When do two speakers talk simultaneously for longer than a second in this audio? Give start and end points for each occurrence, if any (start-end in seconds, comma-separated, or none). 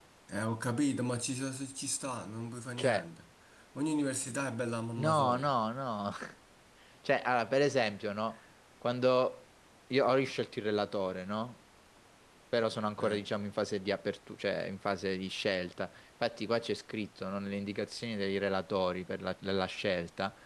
none